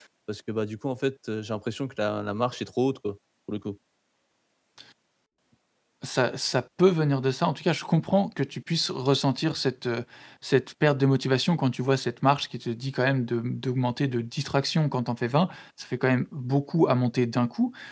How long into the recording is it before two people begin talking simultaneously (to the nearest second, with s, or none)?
none